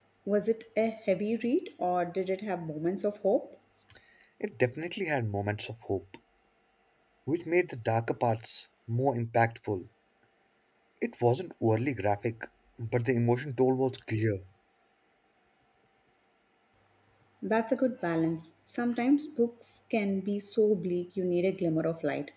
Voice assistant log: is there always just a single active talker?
Yes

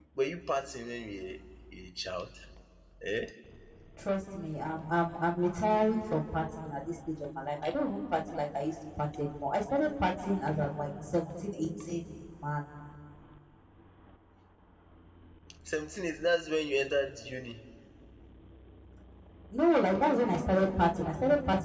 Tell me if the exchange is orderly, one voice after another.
Yes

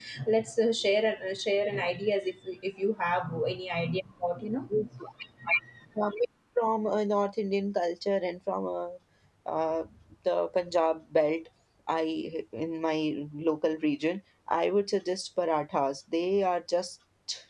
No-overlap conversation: Yes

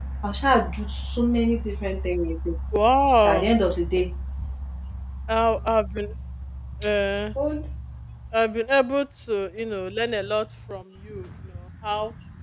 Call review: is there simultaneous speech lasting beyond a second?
No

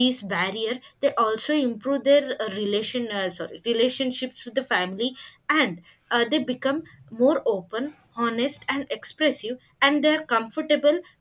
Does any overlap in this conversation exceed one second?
No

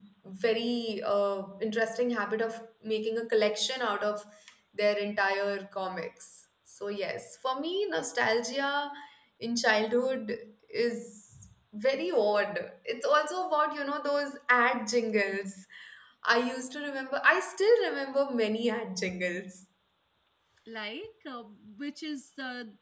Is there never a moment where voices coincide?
Yes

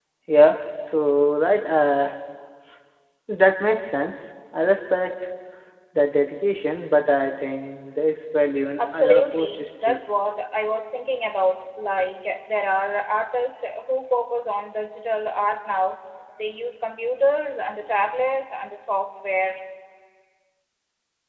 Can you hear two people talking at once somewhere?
Yes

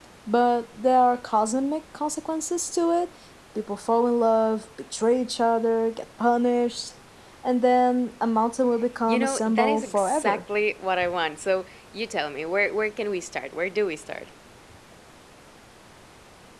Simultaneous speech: Yes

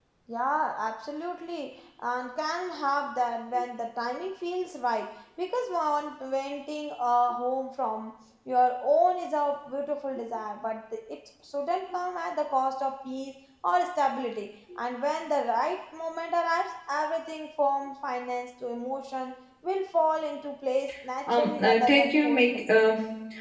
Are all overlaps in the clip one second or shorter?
No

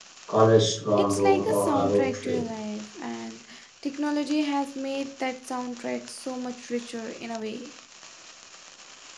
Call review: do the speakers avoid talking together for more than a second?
No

